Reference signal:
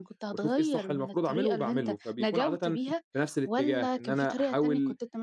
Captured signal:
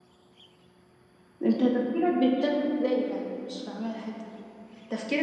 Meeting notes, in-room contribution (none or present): present